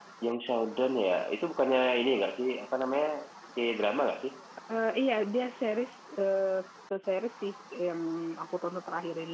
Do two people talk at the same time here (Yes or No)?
No